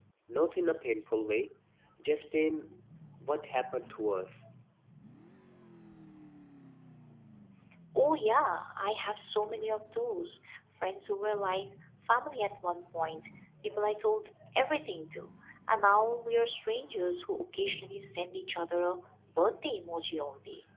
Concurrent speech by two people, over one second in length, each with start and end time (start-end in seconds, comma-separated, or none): none